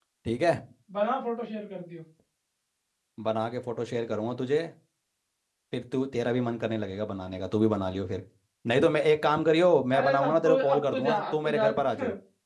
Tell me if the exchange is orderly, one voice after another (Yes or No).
No